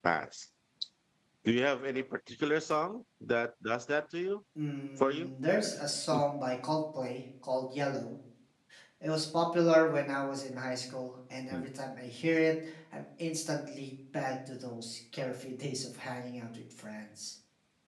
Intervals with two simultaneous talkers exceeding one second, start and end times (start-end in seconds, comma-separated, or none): none